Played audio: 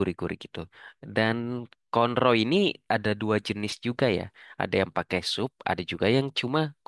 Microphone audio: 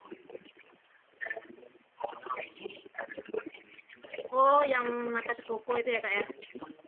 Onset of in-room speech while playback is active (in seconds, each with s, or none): 4.3 s